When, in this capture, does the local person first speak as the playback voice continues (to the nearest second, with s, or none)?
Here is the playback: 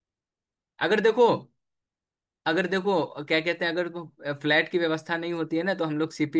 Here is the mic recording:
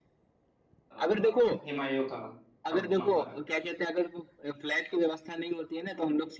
1 s